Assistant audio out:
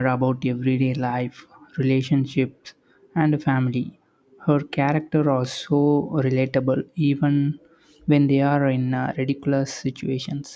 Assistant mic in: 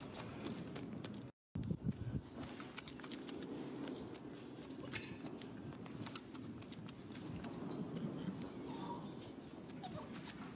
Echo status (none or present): none